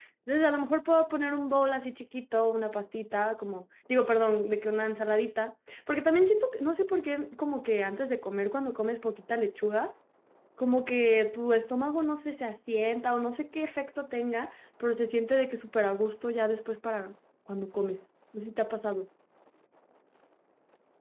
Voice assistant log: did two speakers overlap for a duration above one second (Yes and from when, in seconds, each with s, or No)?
No